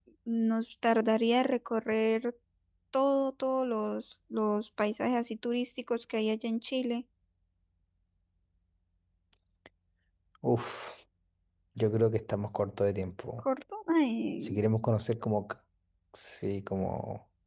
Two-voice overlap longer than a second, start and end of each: none

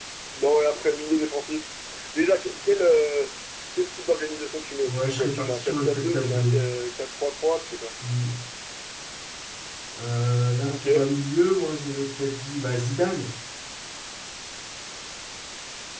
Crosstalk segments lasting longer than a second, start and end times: 4.9-6.4

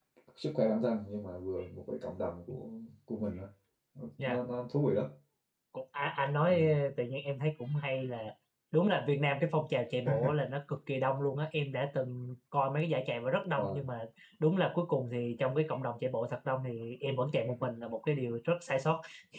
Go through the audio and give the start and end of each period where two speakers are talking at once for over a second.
none

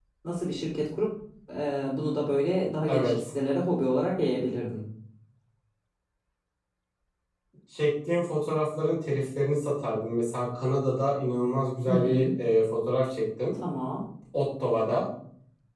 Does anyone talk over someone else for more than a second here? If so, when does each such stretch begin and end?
none

